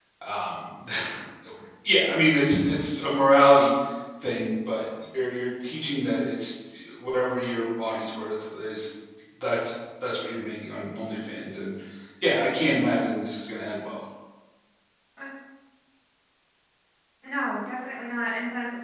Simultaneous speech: No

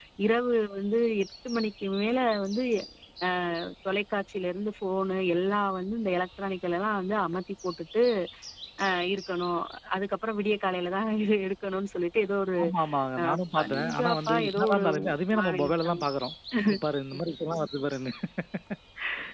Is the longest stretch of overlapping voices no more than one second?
No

